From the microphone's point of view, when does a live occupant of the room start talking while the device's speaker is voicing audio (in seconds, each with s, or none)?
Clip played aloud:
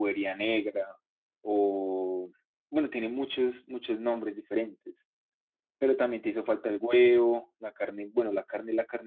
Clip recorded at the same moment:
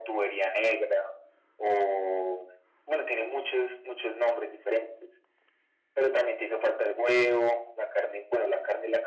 none